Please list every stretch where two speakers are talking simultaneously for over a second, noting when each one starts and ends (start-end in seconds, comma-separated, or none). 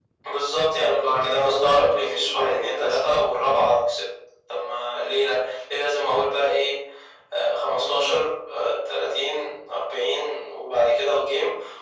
0.8-3.0